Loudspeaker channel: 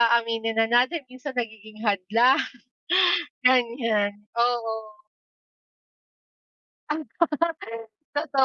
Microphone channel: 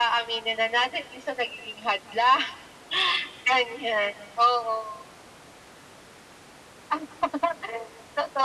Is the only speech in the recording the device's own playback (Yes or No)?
Yes